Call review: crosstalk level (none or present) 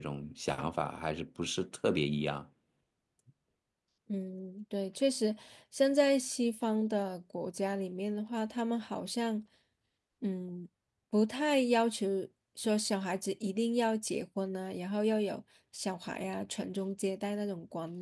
none